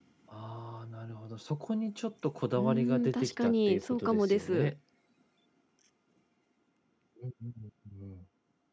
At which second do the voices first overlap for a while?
2.6 s

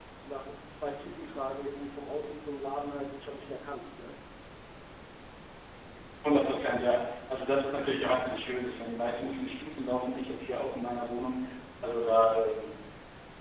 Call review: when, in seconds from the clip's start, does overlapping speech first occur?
none

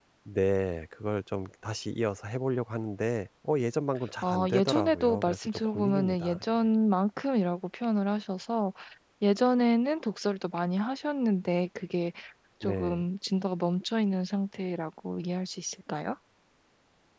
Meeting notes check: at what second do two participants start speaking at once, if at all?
4.2 s

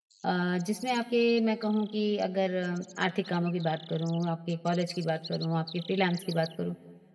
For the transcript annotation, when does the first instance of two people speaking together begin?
none

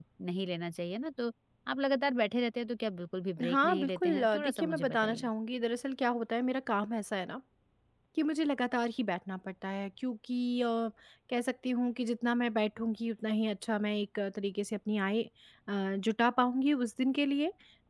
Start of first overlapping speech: 3.4 s

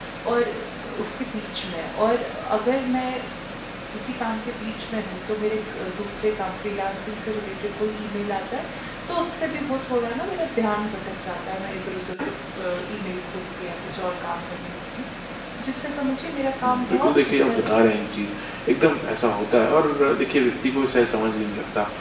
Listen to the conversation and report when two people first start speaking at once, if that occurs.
16.6 s

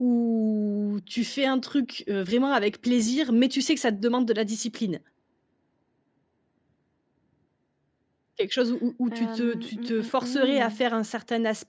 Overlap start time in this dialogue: 9.1 s

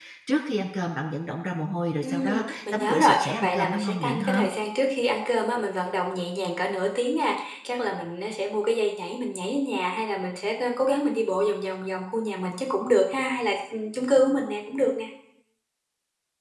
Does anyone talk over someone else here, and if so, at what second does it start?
2.0 s

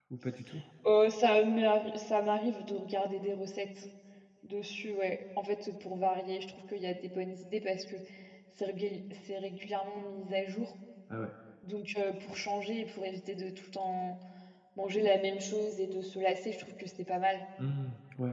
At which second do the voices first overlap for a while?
none

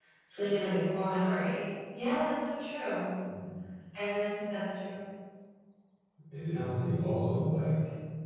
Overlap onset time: none

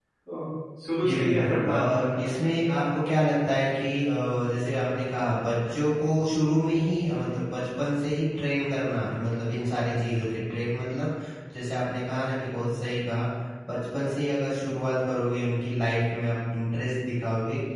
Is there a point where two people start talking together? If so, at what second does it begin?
1.0 s

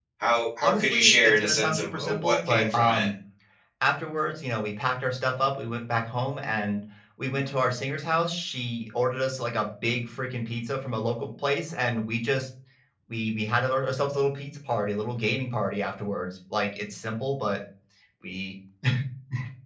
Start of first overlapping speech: 0.6 s

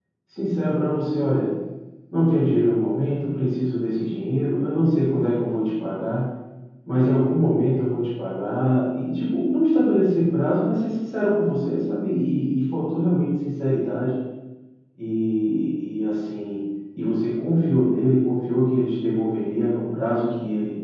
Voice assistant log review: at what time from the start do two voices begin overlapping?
none

